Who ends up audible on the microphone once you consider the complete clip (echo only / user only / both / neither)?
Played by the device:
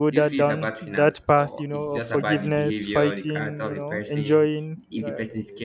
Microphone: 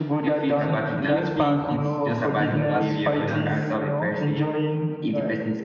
both